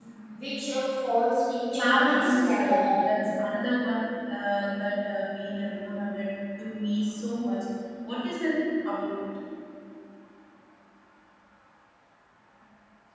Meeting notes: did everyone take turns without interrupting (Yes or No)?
No